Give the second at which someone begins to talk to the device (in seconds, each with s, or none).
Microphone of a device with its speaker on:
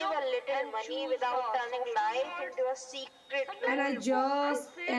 3.7 s